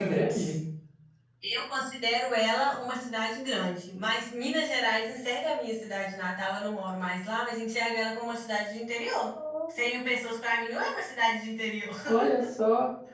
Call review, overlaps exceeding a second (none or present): none